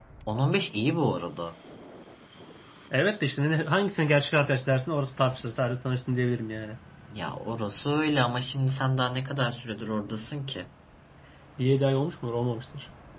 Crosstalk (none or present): none